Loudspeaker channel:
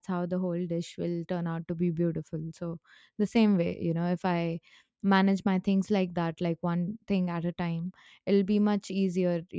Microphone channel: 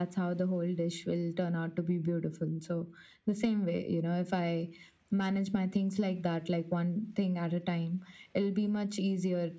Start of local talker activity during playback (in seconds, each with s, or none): none